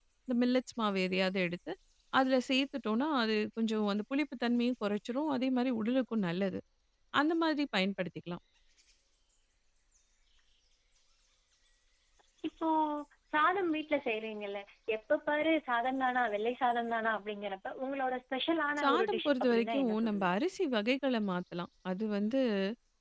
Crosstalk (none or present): present